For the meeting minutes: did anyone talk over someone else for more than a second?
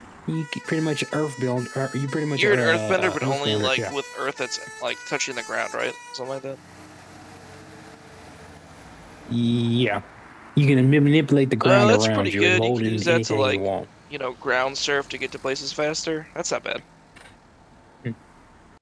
Yes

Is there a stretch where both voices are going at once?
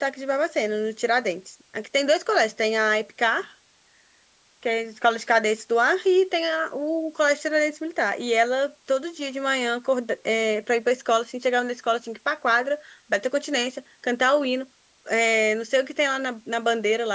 No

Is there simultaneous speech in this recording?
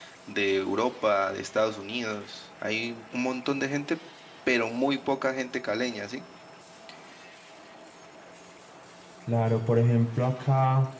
No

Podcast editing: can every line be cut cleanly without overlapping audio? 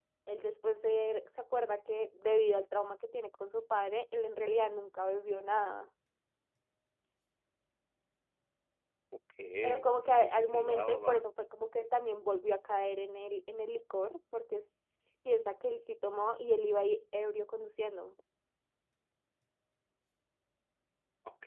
No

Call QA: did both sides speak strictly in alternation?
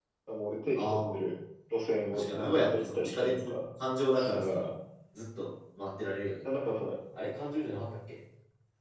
No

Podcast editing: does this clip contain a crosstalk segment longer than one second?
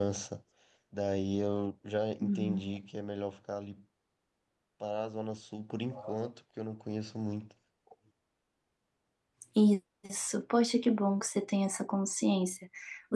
No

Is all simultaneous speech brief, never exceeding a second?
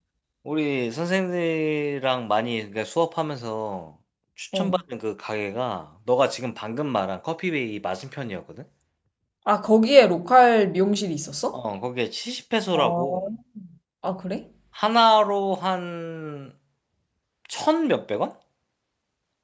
Yes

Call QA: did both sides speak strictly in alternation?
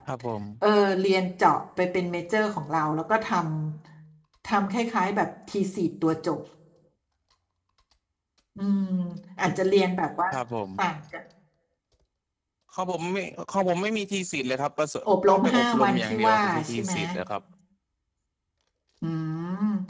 No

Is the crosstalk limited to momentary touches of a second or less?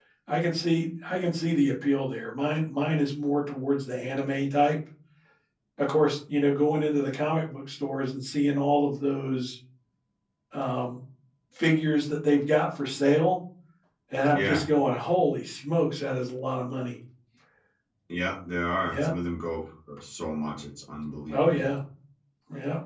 Yes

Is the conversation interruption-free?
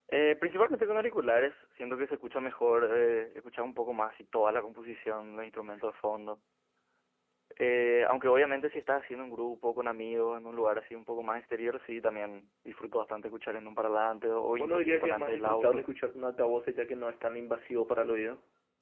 No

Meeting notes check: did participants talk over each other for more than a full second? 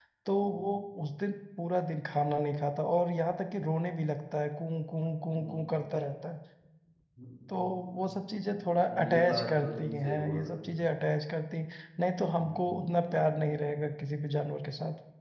Yes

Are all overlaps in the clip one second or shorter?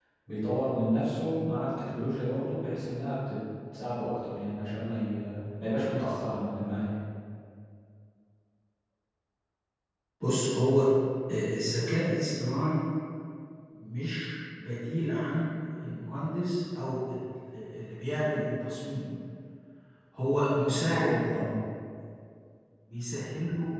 Yes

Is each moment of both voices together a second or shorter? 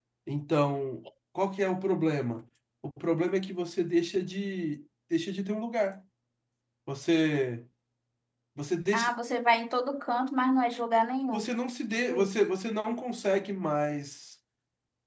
Yes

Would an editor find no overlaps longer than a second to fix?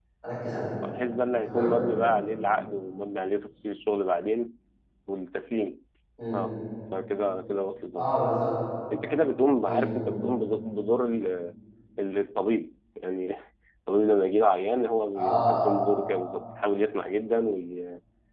Yes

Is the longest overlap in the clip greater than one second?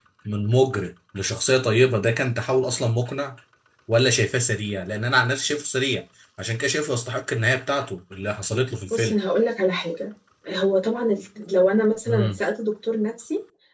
No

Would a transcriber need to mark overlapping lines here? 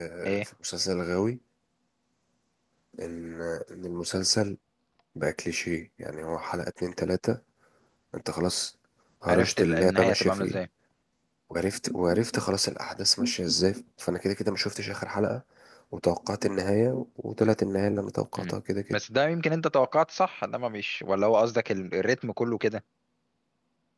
Yes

